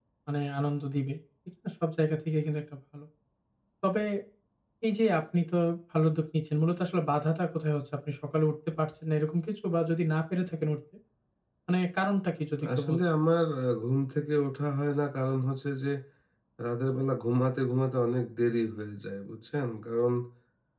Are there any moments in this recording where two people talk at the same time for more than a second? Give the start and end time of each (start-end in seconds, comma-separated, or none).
none